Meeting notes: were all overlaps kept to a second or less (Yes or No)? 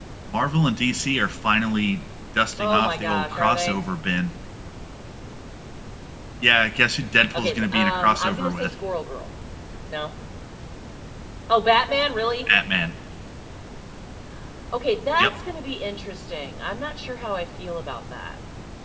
No